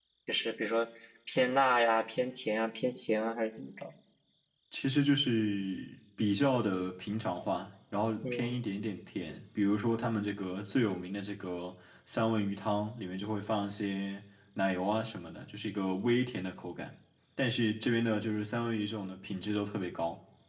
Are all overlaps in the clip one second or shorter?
Yes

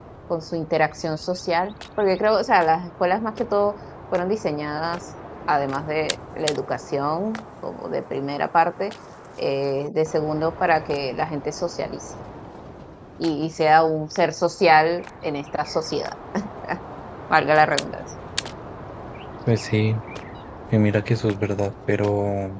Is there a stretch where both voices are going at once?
No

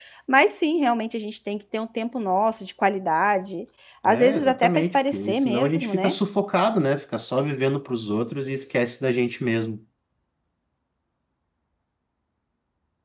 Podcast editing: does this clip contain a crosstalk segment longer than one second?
Yes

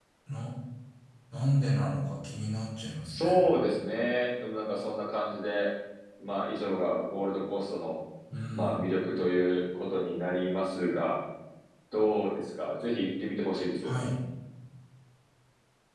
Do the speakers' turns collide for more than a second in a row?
No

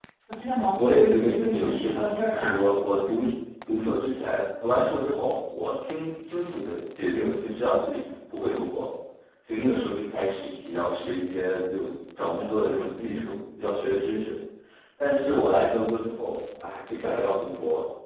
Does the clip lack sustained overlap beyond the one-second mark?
No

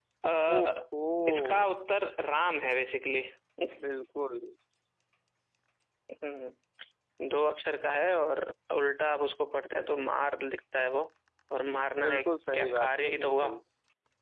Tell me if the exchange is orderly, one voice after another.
No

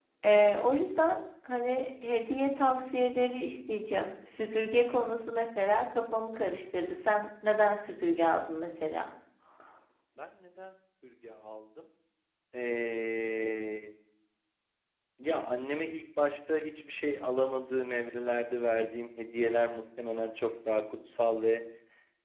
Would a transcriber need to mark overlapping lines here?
No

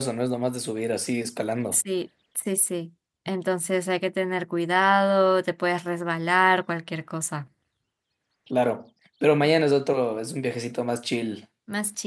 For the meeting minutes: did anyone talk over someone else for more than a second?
No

